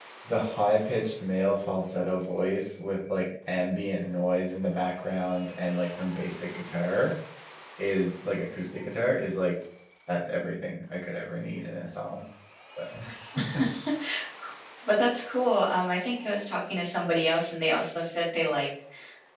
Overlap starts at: none

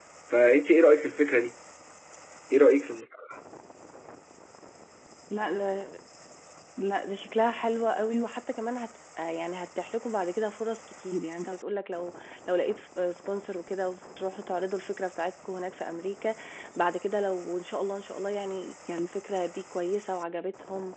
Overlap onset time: none

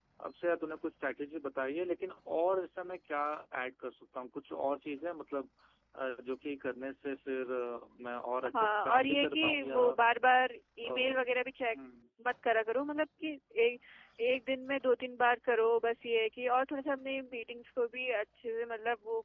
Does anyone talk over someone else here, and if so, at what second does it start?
8.6 s

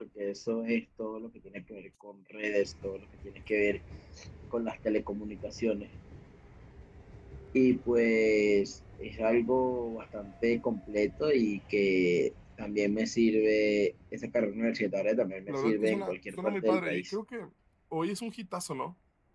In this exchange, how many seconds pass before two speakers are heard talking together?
15.5 s

